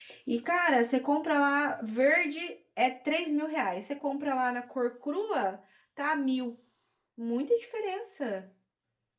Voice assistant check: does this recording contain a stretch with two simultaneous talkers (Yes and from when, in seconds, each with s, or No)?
No